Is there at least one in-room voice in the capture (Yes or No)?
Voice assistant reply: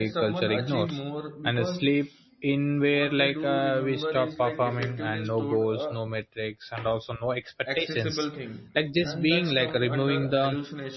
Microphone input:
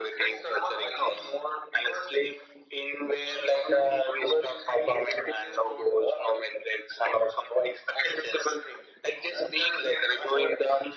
No